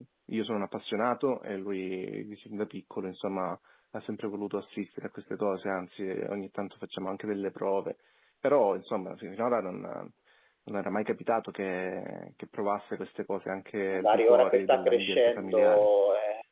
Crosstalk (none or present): present